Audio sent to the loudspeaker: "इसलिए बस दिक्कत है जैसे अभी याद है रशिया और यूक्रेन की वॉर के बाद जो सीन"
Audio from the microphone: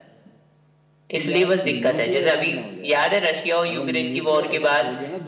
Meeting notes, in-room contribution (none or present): present